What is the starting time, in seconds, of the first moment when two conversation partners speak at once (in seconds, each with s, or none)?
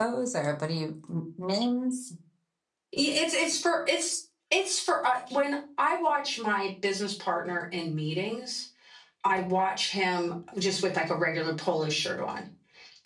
none